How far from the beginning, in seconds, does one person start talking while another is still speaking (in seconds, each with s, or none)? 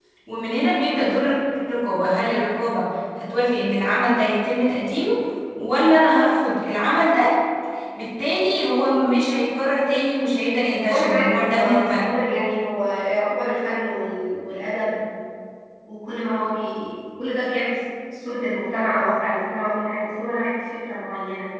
10.8 s